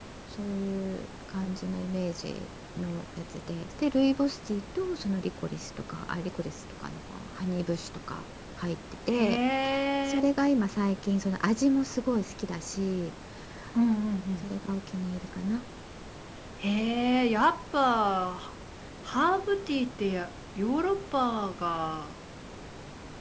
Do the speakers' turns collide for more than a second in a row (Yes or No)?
No